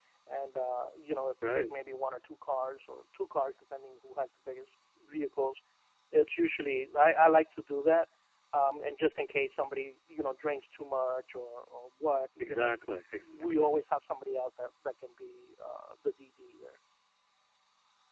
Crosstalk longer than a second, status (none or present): none